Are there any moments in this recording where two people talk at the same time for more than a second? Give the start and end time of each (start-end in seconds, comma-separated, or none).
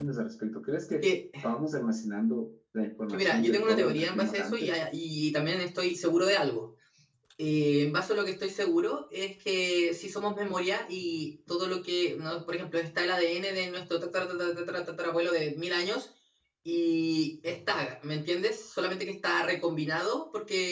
3.1-4.7